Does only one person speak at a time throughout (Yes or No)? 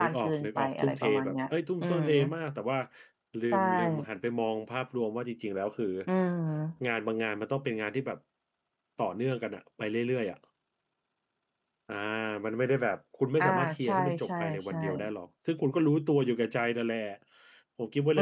No